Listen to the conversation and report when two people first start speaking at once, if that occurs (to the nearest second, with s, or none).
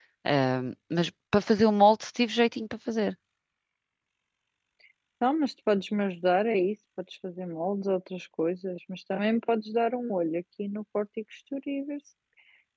none